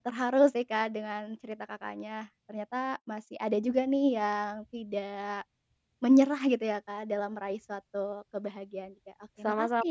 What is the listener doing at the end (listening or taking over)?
taking over